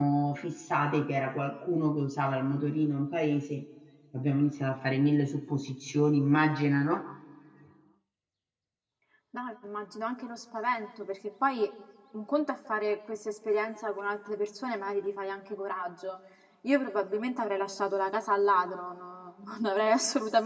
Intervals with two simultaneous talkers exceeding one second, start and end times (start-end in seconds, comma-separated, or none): none